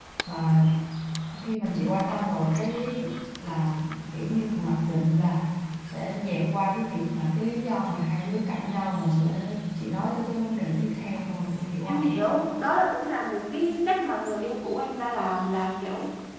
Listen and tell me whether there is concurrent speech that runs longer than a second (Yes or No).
No